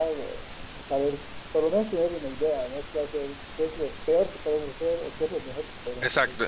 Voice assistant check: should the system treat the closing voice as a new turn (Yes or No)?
Yes